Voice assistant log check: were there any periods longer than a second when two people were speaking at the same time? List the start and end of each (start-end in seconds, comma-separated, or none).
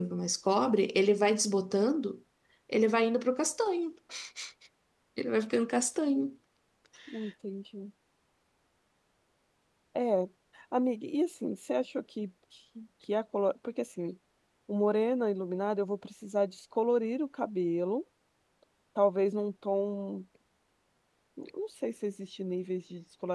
none